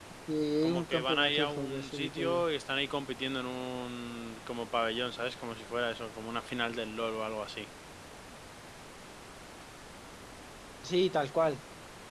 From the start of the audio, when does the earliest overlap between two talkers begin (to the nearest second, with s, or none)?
1 s